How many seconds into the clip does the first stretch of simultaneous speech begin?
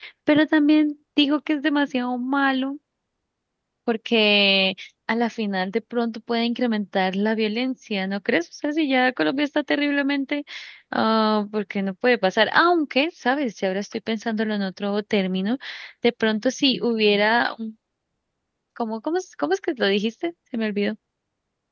none

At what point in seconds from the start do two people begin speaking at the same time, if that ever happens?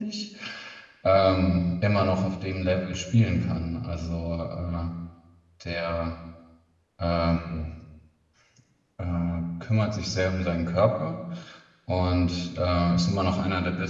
none

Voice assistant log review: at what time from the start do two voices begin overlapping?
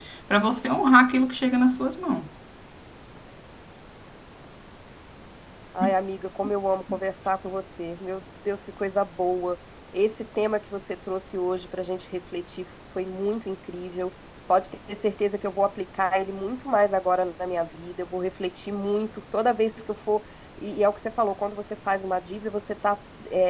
none

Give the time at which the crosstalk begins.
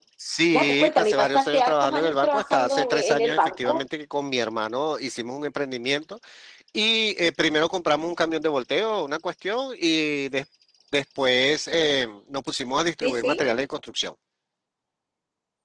1 s

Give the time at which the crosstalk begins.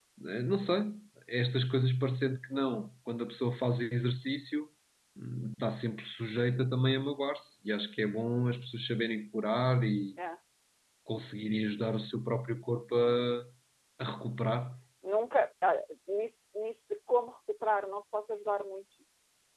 none

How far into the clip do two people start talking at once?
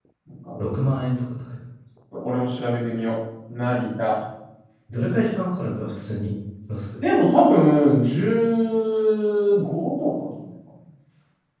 none

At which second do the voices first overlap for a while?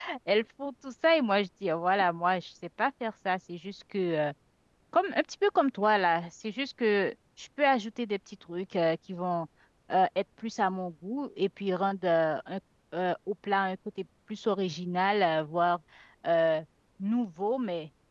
none

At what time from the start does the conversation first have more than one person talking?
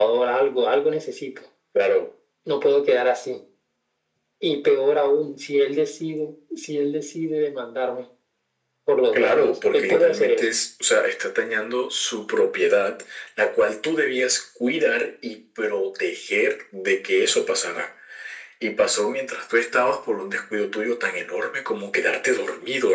9 s

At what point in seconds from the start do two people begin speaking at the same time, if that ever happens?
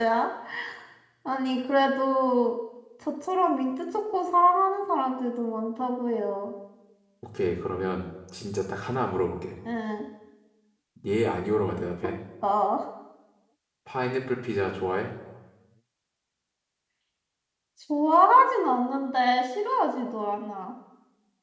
none

